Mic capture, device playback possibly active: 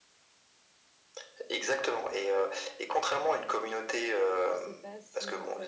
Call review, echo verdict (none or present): present